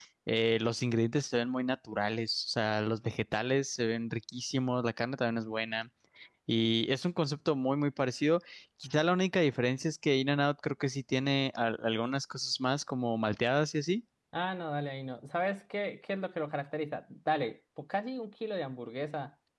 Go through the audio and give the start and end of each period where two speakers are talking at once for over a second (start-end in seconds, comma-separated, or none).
none